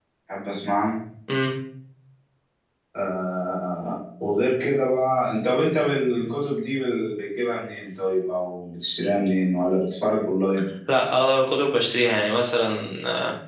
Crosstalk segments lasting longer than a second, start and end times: none

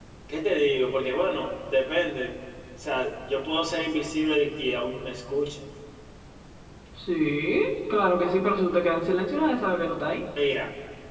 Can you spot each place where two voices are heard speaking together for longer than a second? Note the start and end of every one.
none

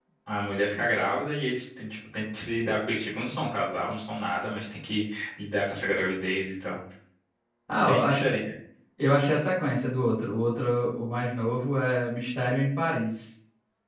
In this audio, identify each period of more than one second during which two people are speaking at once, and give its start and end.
none

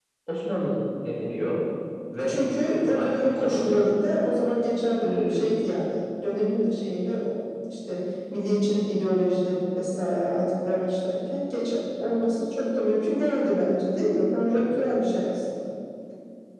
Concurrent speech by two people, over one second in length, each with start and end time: 2.3-3.9

